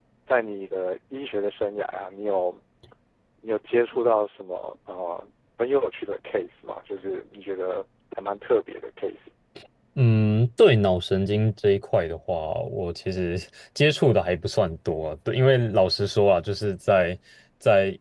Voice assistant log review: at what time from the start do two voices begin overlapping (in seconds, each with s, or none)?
none